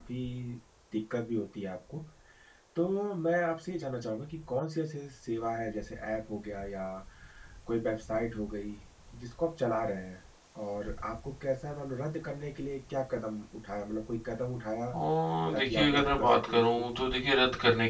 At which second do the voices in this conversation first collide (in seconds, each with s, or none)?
15.5 s